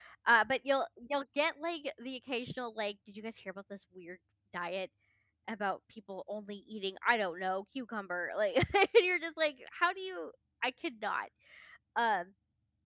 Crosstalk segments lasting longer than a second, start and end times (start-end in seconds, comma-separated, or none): none